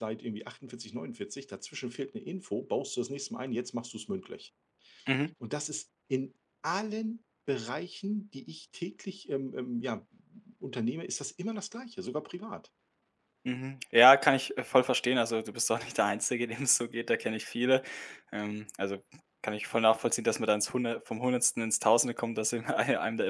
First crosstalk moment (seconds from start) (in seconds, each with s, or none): none